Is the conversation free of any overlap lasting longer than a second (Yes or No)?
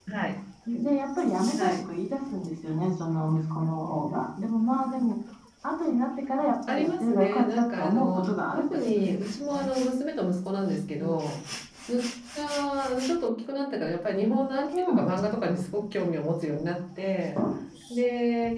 No